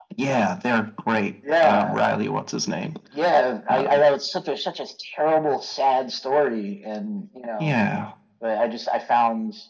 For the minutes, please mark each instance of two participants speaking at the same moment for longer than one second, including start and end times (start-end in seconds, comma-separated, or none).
none